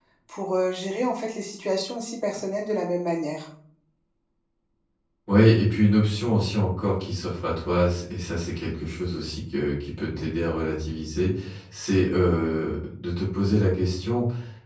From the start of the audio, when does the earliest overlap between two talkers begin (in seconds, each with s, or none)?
none